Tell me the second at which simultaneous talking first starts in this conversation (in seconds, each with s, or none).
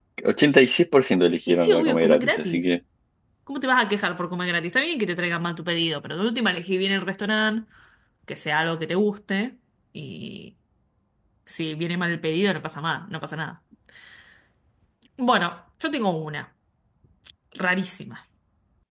1.5 s